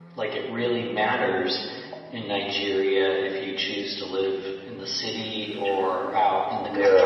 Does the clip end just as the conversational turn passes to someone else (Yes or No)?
Yes